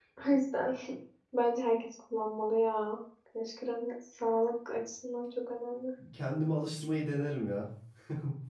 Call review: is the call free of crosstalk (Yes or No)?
Yes